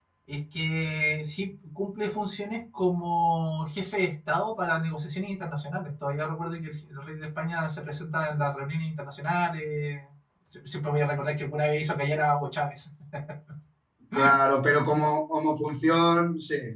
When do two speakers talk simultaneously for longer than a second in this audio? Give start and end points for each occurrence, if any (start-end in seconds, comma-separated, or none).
none